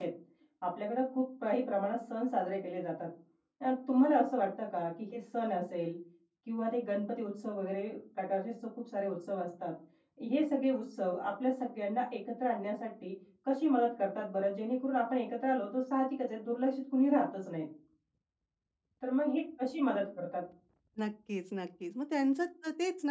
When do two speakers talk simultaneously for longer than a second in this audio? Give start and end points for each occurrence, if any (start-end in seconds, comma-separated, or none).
none